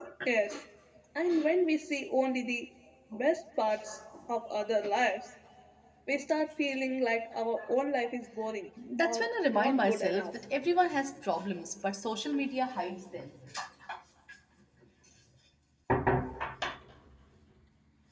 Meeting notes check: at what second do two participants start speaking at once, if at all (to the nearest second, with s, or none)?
9 s